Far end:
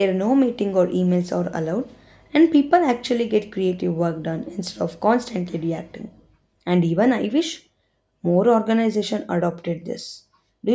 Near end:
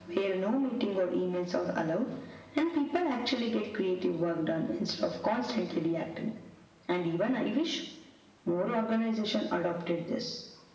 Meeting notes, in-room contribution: none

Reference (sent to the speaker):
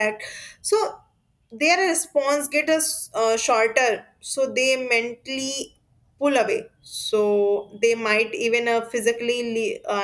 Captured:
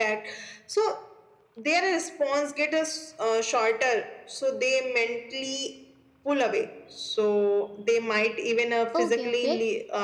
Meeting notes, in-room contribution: present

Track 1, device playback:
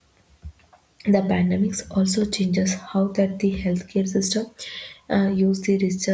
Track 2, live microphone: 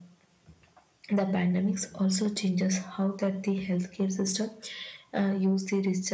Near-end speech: none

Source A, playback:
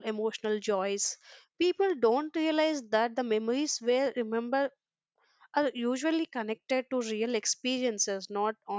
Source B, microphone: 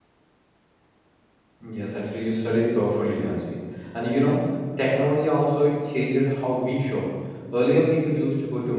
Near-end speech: present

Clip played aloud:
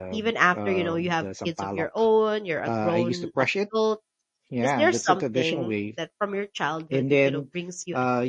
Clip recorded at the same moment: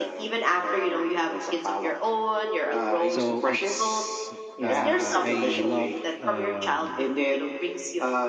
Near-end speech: present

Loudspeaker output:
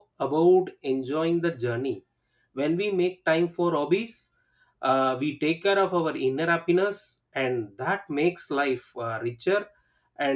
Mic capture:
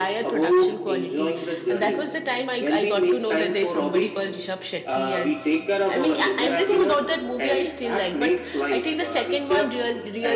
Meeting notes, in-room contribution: present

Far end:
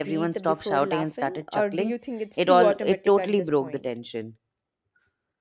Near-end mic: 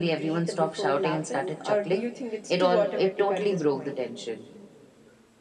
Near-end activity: none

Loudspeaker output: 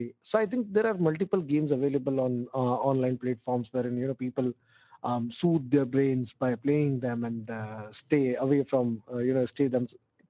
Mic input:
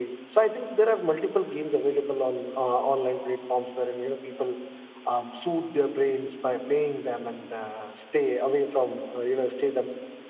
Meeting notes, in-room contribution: none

